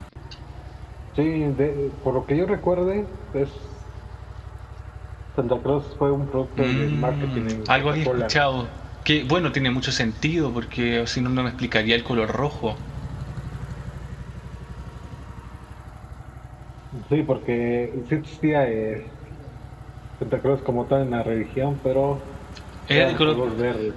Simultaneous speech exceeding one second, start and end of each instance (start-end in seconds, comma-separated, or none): 6.6-8.3